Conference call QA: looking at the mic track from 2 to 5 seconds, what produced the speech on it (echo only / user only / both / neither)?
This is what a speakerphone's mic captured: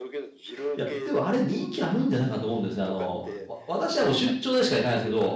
both